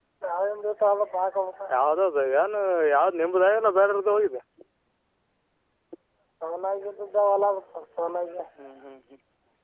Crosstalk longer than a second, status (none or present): none